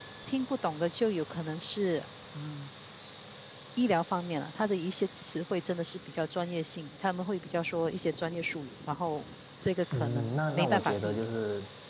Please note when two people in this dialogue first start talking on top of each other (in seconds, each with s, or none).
9.9 s